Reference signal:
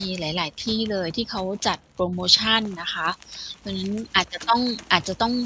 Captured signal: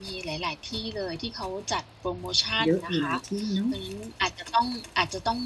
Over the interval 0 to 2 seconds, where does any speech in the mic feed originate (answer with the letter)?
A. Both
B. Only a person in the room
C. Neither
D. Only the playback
D